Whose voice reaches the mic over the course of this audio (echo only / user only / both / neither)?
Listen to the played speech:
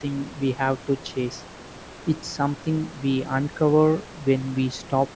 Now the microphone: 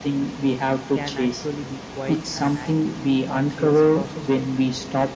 both